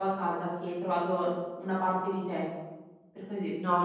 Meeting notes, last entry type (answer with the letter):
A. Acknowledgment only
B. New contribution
B